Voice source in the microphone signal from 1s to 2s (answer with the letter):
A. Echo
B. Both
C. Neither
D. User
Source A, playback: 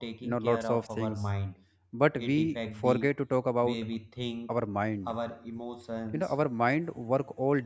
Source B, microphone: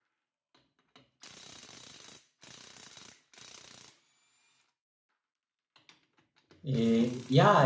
C